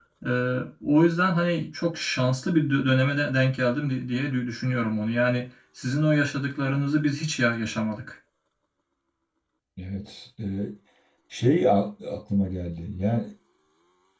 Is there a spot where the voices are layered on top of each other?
No

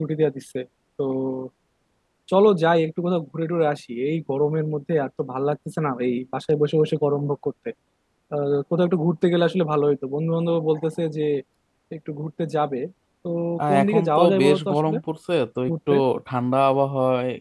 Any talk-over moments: Yes, from 13.7 s

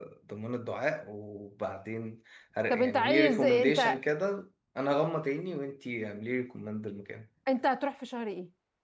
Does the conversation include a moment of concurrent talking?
Yes, from 2.7 s

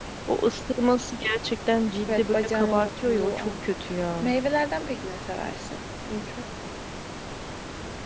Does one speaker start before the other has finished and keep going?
Yes, from 2.1 s

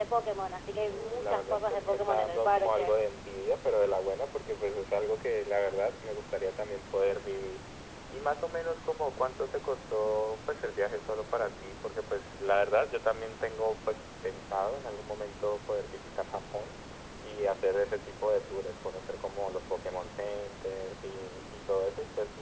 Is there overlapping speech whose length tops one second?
Yes, from 0.9 s

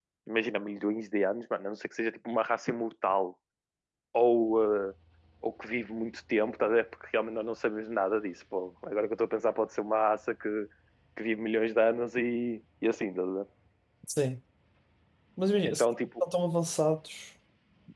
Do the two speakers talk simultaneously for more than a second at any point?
No

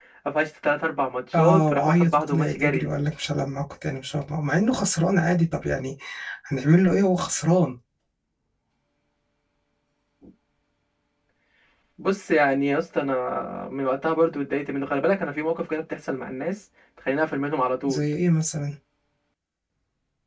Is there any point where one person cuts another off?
Yes, from 1.3 s

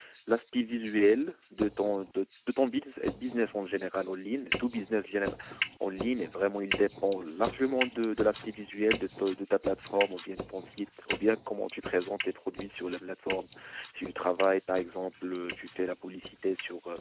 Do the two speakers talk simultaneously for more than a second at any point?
No

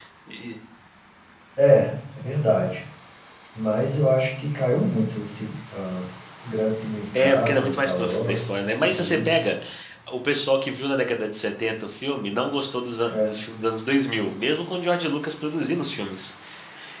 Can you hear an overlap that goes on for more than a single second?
Yes, from 7.1 s

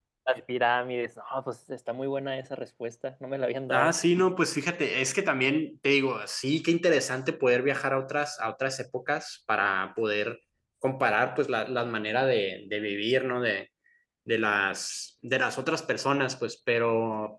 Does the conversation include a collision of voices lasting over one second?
No

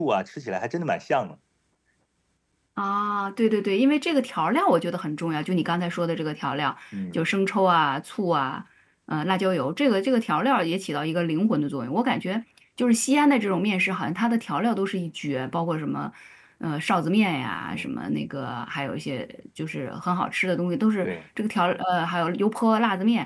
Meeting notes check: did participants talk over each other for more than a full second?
No

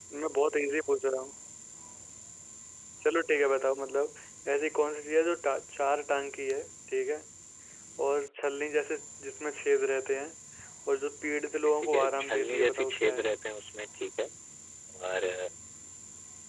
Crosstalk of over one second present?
Yes, from 11.7 s

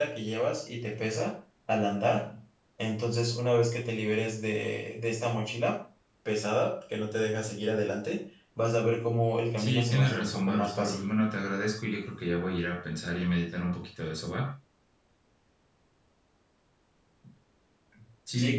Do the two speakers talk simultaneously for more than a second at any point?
Yes, from 9.6 s

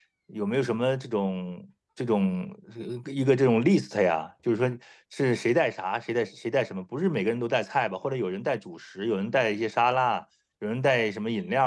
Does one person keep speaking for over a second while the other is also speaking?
No

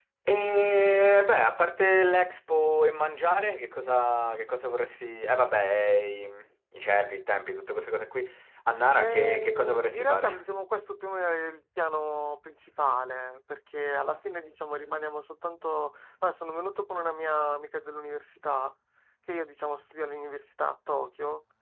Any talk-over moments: Yes, from 9.0 s

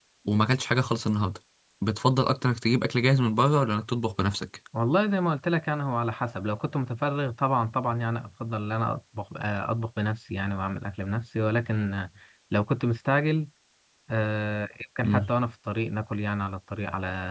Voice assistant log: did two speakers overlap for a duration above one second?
No

